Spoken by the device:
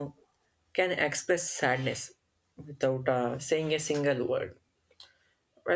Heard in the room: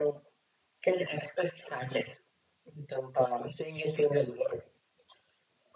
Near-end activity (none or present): none